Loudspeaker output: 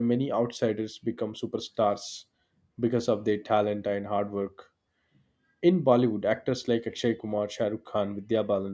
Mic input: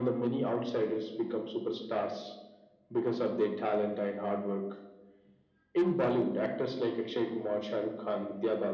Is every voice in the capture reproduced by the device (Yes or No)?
Yes